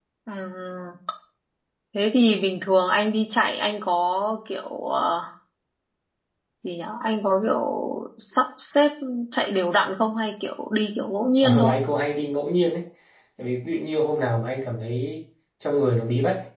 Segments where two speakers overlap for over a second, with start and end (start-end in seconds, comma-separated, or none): none